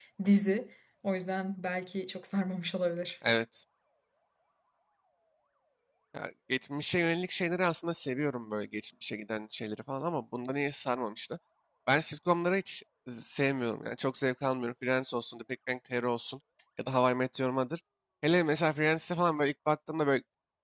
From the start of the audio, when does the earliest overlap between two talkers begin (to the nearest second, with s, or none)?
none